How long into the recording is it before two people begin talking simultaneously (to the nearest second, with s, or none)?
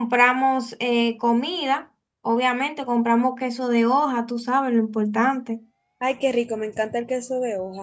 none